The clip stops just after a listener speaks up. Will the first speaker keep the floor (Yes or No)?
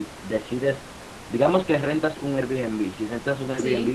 Yes